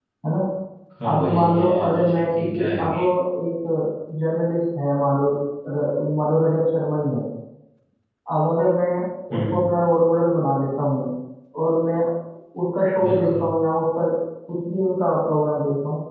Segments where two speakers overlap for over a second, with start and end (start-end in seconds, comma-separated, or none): 1.1-3.0